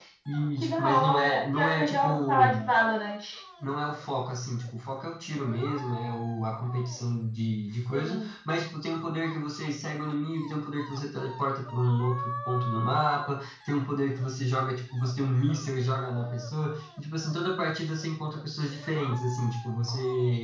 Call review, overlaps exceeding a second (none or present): present